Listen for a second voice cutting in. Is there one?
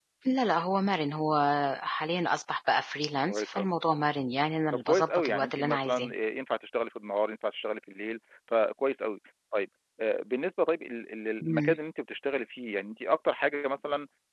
Yes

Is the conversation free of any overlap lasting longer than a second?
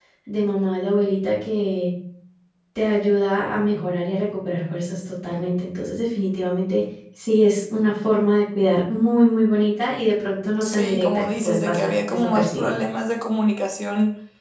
No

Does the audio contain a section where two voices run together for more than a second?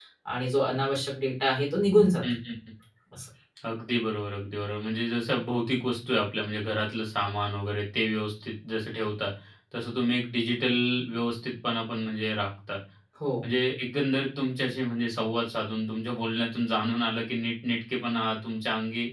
No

